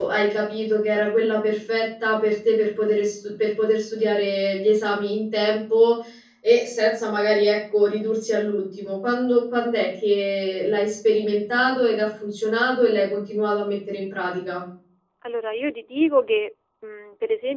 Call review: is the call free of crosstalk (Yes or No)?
Yes